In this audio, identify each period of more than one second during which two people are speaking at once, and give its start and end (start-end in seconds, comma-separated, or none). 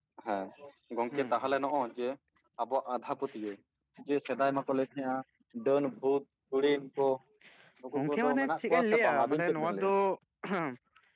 8.0-9.9